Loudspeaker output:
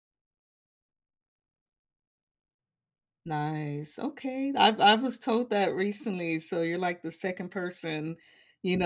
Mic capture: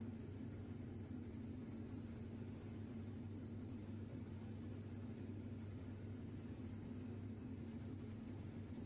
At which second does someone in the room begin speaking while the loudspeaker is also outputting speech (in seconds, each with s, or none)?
none